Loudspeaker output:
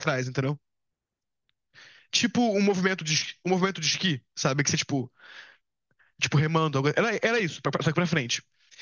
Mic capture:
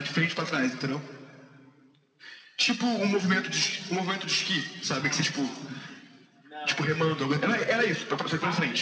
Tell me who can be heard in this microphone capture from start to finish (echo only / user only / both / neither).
both